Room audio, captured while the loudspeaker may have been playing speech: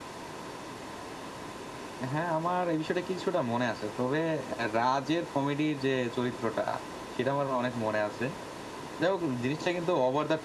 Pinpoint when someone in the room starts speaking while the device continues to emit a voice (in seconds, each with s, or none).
none